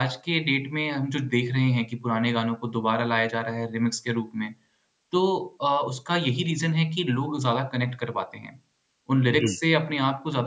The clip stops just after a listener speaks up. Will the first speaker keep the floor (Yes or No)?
Yes